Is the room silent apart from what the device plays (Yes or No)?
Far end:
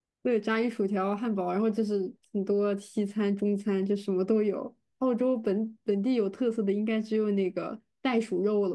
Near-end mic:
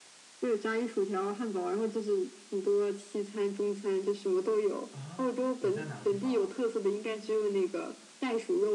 No